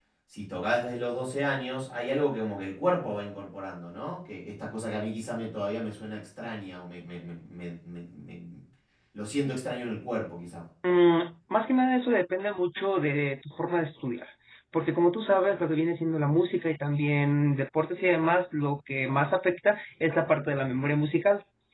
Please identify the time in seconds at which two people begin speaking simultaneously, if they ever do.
none

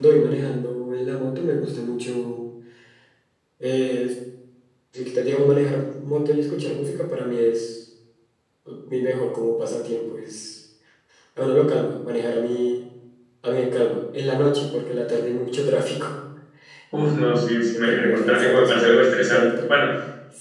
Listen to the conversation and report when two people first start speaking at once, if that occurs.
17.7 s

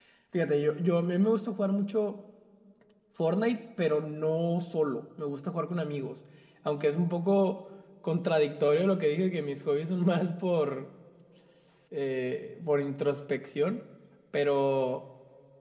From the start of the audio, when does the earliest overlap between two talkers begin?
none

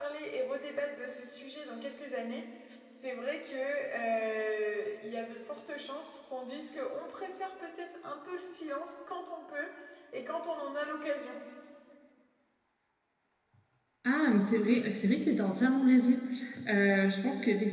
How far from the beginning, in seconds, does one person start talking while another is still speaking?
none

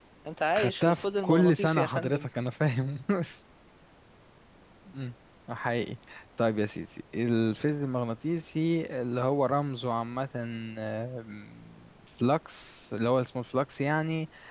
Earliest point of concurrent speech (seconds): 0.5 s

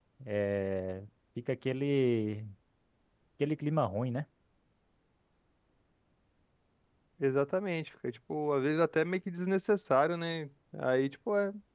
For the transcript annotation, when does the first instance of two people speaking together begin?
none

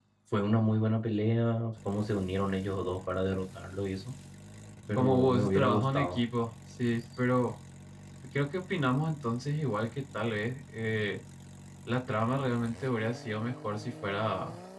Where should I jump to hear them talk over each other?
5.0 s

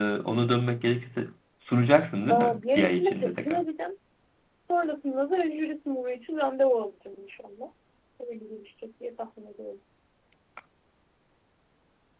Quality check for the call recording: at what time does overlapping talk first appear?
2.3 s

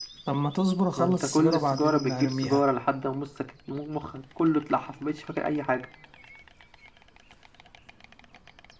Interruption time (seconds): 1.0 s

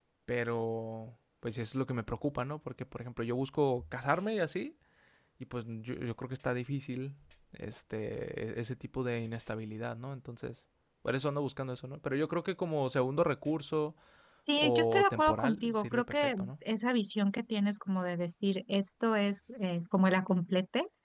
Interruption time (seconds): 14.6 s

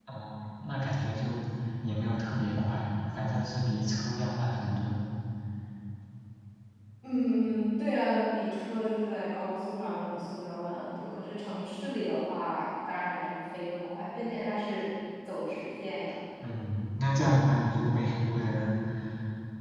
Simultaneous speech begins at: none

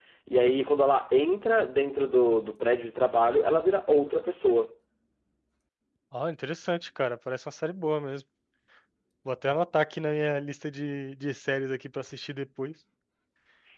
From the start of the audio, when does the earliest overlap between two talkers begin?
none

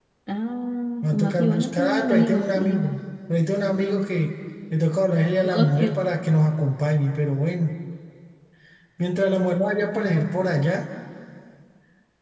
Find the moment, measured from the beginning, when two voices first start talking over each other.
1.0 s

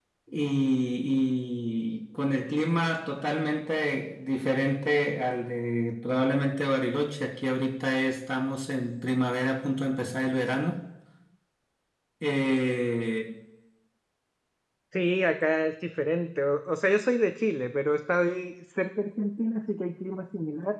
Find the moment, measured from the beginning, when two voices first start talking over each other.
none

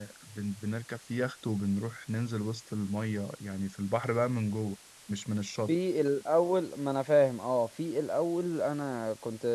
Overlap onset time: none

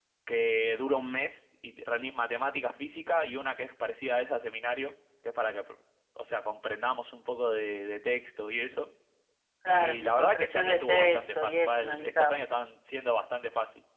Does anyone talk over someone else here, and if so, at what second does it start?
9.7 s

